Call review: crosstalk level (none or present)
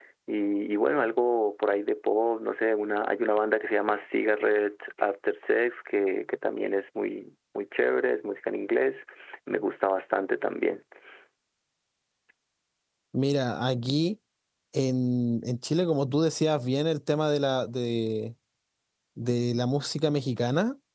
none